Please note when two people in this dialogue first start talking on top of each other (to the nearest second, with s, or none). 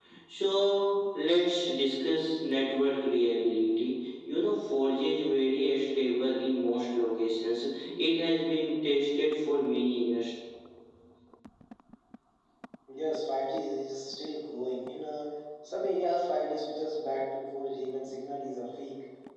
none